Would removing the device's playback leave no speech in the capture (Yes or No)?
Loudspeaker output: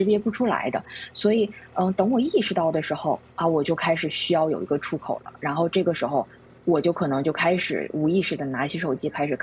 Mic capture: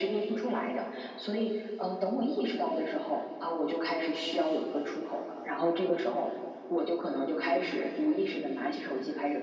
Yes